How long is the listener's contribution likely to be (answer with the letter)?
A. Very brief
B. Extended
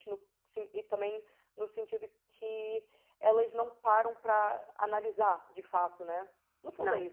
A